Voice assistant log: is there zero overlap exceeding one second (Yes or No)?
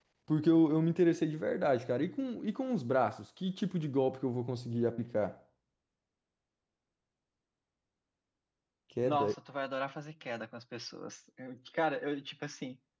Yes